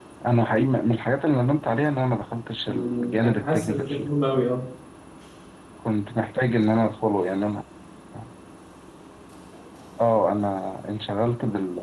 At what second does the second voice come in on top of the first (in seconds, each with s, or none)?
2.7 s